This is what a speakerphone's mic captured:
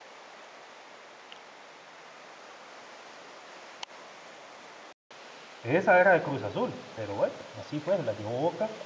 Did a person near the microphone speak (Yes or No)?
Yes